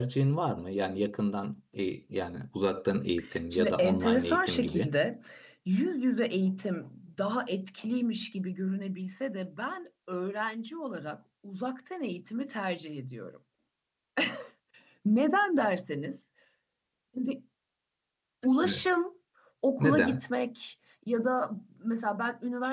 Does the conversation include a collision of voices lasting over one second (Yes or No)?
Yes